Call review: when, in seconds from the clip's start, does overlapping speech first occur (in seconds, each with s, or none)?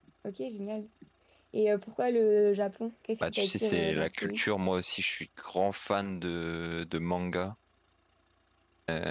3.2 s